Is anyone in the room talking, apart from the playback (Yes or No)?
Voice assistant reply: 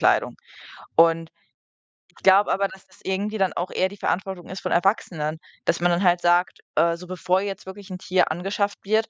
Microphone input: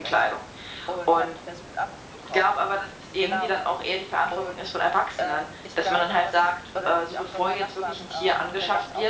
Yes